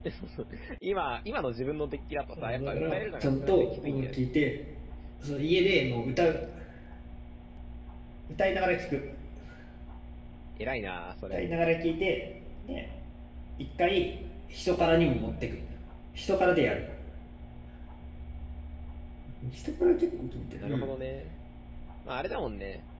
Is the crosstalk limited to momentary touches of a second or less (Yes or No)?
No